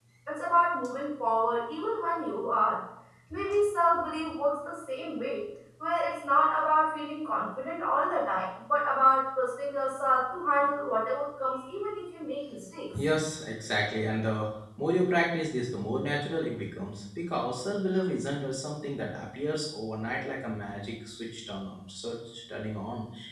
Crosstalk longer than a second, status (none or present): none